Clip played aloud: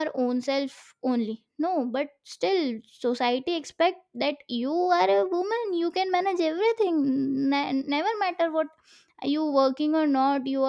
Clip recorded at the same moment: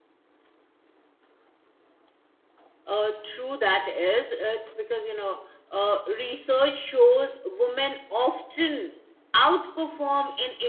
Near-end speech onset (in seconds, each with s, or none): 2.9 s